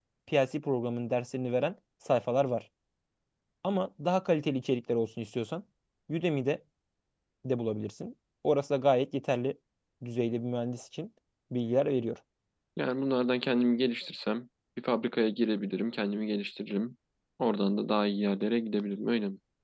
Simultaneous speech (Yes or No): No